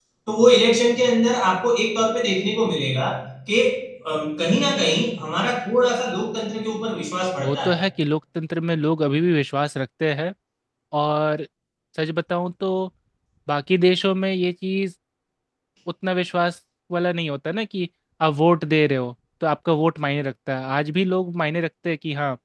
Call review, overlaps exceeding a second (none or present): none